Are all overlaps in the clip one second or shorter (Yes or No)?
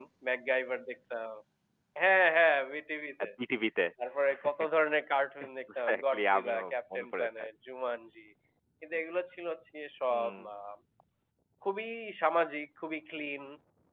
No